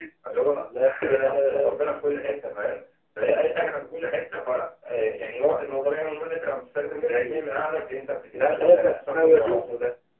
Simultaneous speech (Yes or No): Yes